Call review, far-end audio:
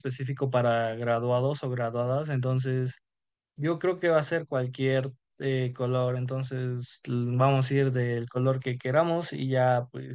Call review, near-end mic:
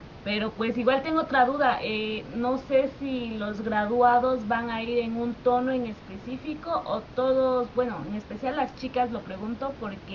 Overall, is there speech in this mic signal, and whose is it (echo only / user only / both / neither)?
user only